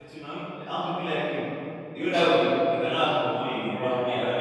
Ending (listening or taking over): taking over